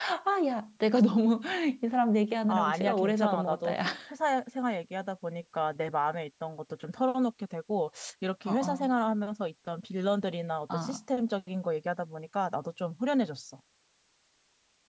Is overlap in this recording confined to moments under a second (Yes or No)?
No